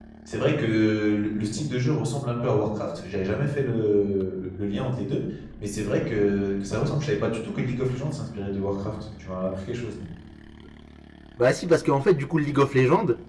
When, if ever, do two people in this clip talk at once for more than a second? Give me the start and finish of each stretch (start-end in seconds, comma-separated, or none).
none